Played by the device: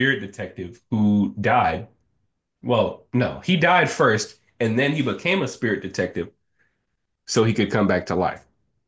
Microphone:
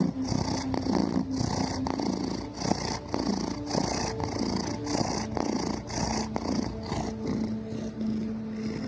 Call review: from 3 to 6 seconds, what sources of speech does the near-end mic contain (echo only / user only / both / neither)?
neither